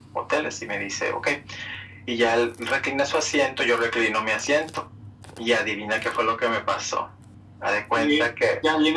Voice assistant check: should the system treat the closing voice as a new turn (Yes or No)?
Yes